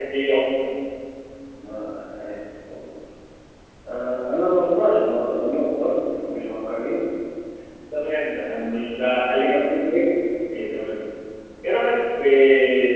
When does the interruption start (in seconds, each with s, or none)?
none